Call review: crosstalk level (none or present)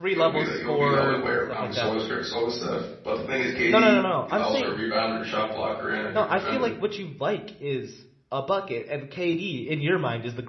present